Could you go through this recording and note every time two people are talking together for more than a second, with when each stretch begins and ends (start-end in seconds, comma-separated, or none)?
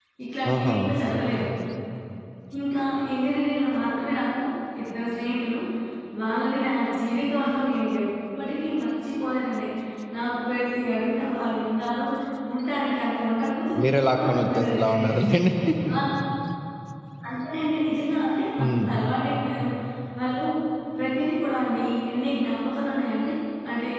13.8-15.4